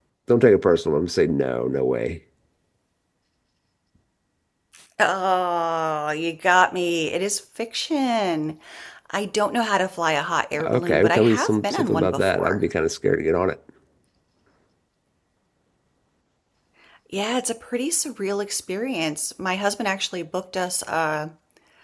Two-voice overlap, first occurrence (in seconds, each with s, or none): 10.6 s